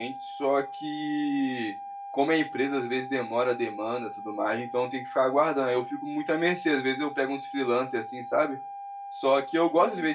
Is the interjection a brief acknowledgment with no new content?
Yes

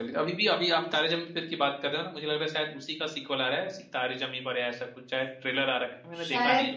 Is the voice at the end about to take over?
Yes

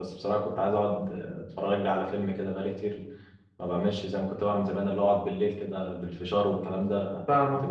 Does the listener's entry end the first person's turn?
Yes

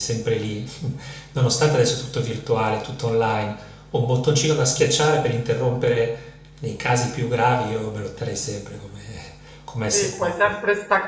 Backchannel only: No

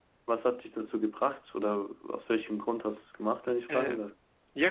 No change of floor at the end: No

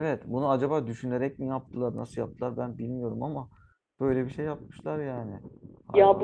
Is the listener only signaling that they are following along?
No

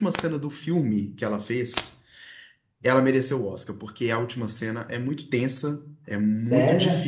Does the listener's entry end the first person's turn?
No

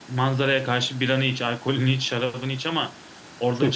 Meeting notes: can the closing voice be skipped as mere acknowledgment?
Yes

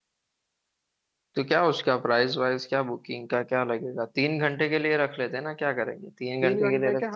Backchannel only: No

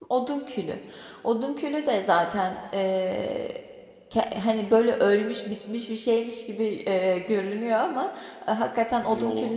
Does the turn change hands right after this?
No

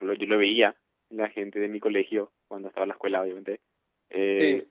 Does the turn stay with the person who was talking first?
Yes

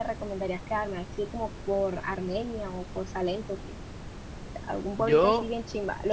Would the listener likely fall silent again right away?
Yes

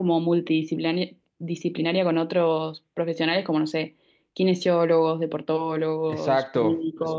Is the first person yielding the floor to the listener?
Yes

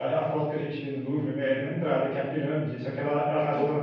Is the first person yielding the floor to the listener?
No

